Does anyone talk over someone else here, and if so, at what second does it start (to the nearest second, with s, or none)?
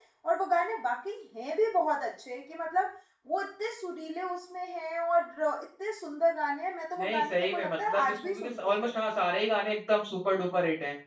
7 s